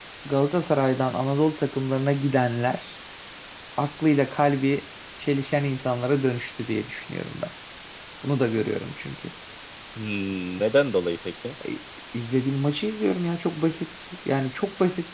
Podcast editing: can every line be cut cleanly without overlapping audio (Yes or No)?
Yes